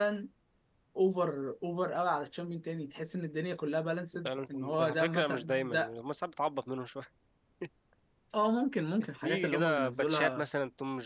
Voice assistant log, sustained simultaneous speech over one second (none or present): present